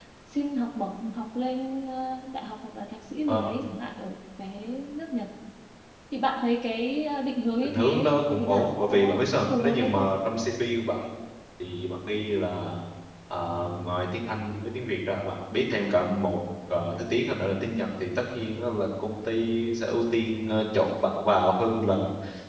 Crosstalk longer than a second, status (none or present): present